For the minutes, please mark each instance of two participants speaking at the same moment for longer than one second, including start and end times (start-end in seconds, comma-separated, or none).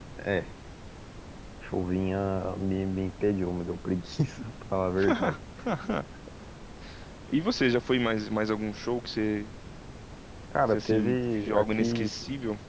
10.7-12.1